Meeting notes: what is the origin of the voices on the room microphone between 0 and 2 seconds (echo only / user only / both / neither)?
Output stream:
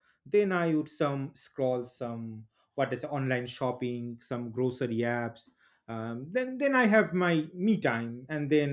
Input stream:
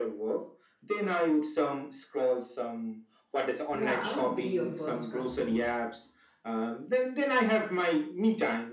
echo only